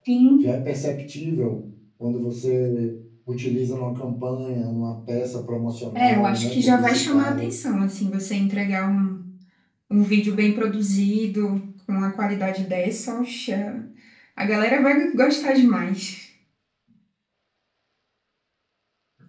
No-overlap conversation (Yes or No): No